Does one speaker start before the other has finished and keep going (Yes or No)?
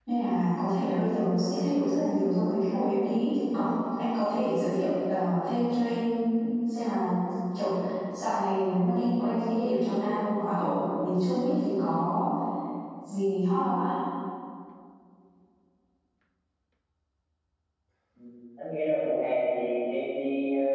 No